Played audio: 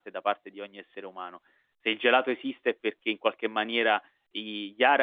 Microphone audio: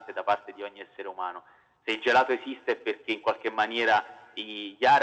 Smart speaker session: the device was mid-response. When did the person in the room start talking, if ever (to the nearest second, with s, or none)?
none